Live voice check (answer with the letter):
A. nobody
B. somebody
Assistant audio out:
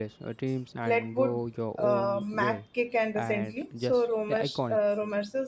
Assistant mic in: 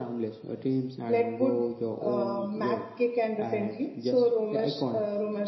A